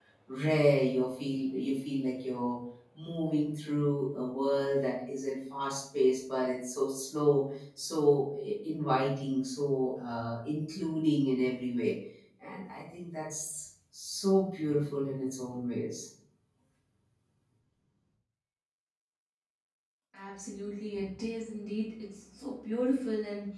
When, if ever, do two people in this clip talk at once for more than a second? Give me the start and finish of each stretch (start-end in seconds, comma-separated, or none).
none